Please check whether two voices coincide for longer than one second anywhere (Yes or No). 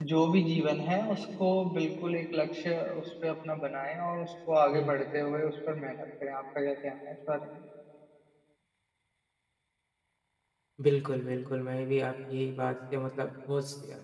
No